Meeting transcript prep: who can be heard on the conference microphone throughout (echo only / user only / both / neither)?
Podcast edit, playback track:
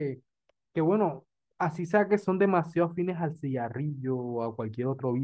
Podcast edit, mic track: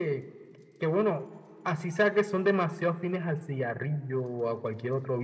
echo only